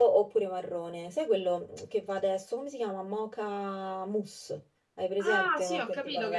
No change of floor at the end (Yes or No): No